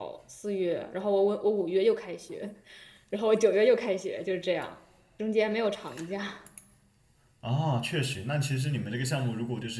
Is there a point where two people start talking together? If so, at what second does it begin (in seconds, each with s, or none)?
none